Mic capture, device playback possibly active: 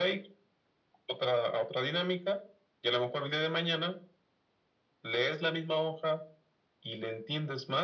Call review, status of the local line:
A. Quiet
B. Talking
A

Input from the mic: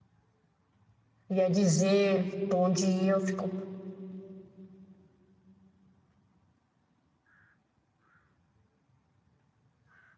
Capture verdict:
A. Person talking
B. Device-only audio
A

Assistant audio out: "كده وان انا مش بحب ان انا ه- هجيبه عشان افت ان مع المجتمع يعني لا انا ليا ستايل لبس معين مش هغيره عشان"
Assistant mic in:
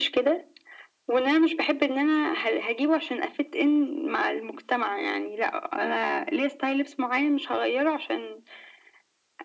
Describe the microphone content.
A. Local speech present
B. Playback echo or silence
B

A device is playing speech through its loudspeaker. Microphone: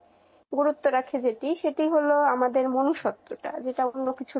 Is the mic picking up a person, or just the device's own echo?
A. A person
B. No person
A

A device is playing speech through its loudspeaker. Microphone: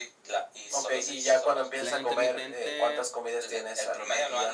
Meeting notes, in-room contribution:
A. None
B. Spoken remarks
B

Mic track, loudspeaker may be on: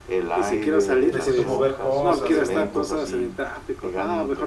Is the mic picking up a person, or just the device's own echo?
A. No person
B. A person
B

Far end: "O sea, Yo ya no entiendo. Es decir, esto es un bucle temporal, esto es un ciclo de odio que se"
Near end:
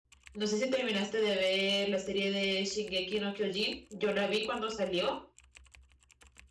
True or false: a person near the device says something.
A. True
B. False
A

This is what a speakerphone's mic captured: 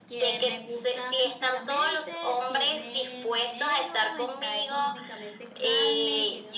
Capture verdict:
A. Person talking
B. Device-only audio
A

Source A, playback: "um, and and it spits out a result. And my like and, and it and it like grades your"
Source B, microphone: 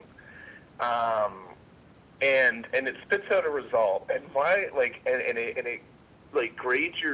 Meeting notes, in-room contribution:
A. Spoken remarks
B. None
B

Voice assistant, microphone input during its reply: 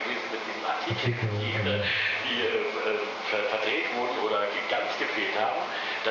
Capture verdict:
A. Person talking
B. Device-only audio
A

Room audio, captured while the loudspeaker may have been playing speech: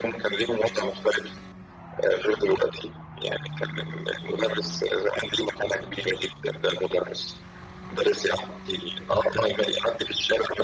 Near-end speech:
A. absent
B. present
A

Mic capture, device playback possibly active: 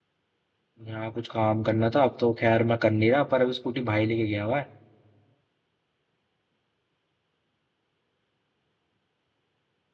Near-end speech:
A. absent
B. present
B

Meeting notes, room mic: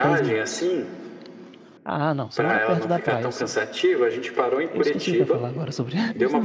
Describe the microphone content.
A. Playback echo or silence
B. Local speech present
B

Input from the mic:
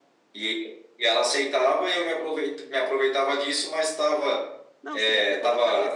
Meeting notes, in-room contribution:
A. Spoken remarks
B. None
A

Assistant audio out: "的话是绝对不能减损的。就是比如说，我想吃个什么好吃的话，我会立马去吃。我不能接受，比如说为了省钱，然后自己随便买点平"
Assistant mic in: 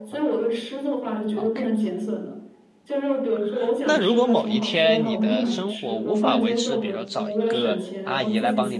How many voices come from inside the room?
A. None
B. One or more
B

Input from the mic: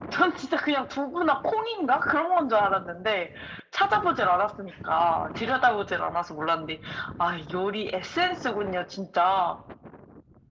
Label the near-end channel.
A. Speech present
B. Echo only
B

